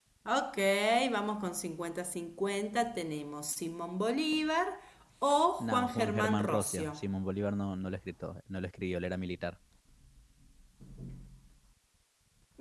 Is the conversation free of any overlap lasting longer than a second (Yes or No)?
No